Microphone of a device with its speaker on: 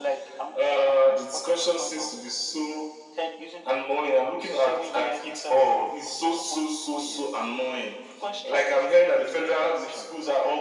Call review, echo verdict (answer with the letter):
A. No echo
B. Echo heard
B